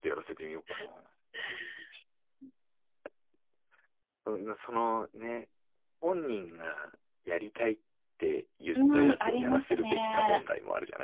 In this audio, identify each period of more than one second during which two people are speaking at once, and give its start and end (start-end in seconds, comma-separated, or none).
8.9-10.4